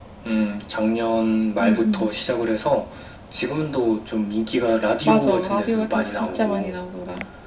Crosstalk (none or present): present